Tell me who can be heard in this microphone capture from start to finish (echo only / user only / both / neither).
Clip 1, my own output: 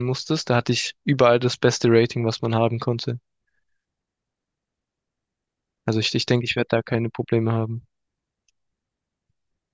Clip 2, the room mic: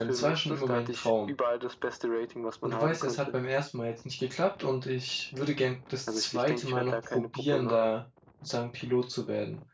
both